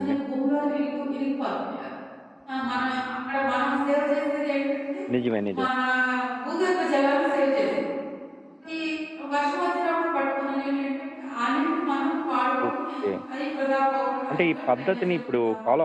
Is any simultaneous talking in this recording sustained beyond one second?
Yes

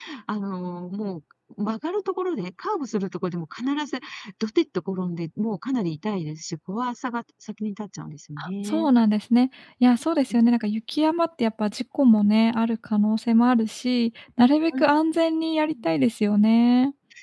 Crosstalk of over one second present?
No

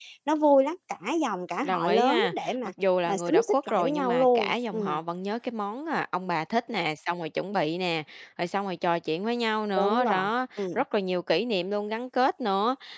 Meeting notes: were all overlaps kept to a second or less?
No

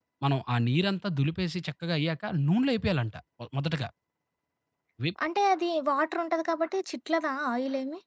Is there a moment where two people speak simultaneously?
No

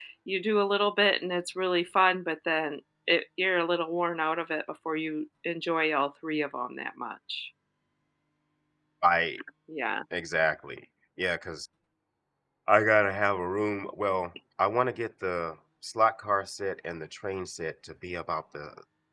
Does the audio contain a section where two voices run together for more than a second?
No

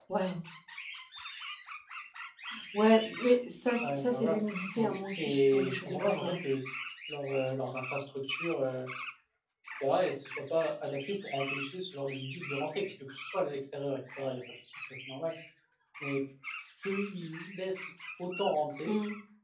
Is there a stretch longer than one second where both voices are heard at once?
Yes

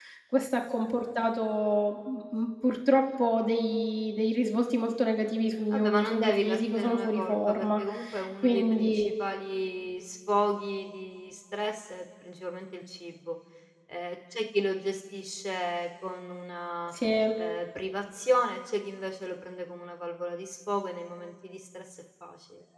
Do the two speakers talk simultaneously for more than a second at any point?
Yes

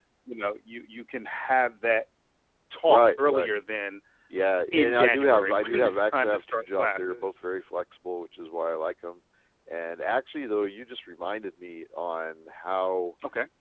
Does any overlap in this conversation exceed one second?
Yes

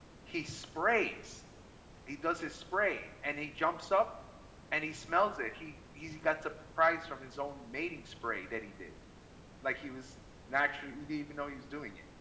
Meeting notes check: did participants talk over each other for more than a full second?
No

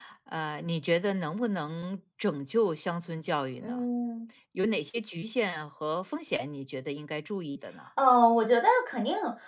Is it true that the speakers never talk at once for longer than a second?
Yes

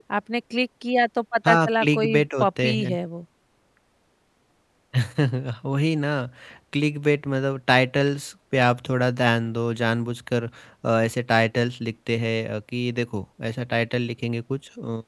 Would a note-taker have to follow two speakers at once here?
Yes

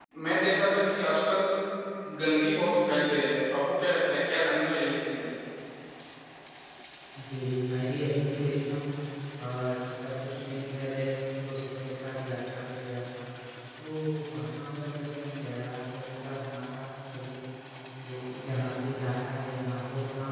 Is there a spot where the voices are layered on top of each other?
No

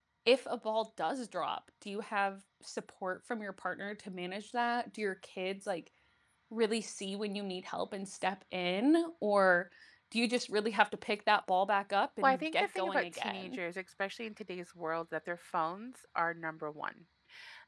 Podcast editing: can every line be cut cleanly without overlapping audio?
No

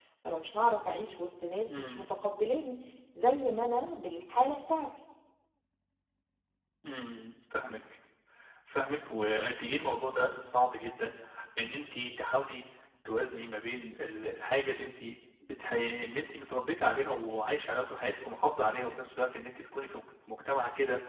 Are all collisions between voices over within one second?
Yes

